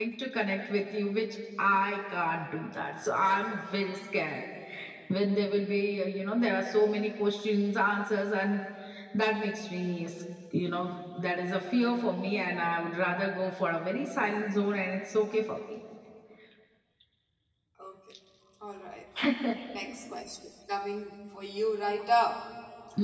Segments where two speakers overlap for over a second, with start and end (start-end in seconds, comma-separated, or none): none